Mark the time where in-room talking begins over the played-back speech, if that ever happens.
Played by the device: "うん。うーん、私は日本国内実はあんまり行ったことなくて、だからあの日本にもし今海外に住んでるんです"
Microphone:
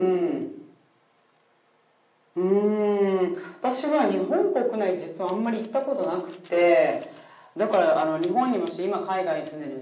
none

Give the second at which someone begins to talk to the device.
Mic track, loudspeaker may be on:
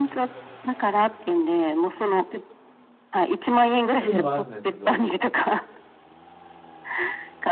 4.0 s

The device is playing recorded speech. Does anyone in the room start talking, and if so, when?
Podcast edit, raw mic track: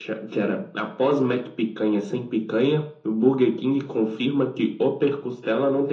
none

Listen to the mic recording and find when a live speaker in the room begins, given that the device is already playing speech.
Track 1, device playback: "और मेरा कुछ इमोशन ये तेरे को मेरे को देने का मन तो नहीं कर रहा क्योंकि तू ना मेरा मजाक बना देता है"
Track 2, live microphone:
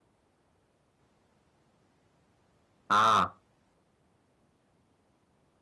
2.9 s

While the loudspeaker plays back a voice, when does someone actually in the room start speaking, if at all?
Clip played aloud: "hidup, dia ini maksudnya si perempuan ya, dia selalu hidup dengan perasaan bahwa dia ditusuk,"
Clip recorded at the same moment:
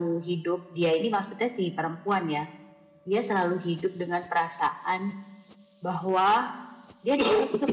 none

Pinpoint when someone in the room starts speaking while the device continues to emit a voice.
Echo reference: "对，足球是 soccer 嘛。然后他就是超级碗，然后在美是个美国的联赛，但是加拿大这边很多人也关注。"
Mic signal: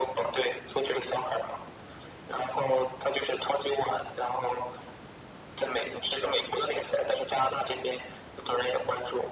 none

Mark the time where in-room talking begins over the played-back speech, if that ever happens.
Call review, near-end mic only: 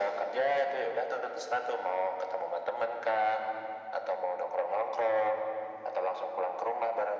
none

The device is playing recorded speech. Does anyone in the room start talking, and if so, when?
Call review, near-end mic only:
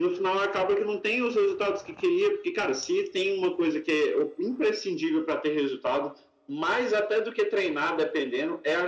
none

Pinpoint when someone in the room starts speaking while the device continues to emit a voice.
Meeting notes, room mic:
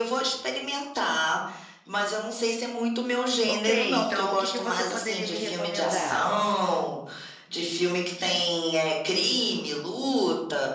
3.4 s

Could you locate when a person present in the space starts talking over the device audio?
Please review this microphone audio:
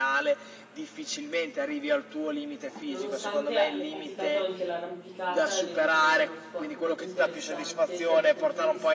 2.9 s

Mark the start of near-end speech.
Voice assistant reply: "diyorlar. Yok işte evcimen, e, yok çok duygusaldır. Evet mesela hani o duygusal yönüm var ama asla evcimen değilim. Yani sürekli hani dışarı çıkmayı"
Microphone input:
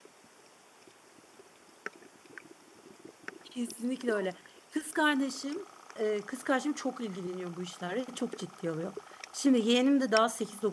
3.4 s

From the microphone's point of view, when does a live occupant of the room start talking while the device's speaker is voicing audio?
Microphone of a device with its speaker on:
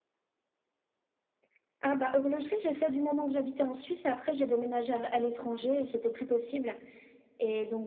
none

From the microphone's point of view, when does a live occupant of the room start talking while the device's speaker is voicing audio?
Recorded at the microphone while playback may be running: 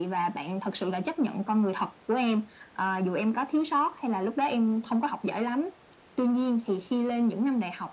none

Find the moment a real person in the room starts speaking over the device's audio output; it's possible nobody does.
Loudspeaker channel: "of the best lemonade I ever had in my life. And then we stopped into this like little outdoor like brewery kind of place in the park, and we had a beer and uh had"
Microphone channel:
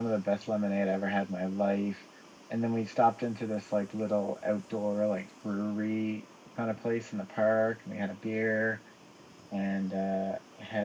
none

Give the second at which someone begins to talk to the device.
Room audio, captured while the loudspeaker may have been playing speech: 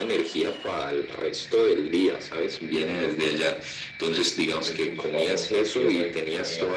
4.6 s

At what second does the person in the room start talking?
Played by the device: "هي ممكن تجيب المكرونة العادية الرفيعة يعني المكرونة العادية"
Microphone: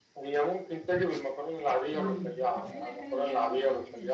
1.9 s

